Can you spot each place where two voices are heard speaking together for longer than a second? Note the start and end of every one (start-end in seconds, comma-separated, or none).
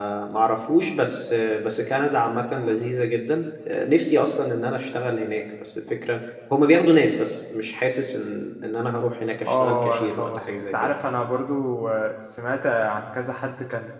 9.5-10.7